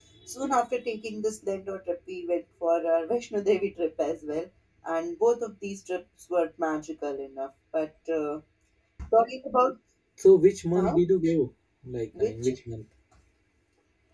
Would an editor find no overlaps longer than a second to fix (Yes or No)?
Yes